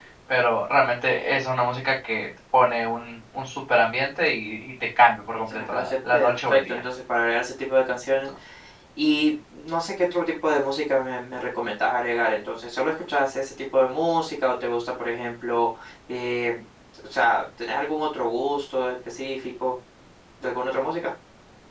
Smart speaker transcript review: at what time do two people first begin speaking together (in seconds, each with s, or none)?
5.5 s